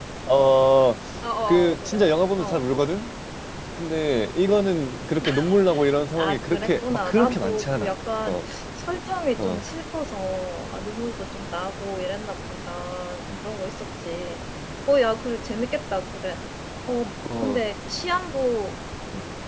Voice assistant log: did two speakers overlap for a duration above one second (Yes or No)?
Yes